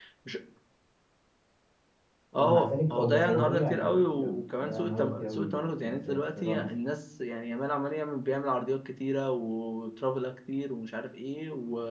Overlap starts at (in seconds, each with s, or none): 2.4 s